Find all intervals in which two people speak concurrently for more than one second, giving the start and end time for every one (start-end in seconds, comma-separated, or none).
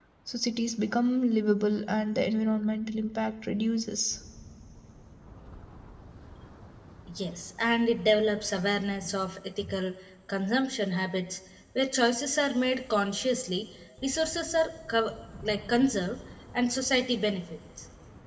none